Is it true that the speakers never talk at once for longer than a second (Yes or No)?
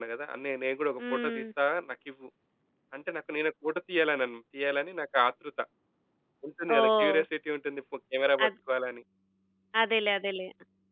Yes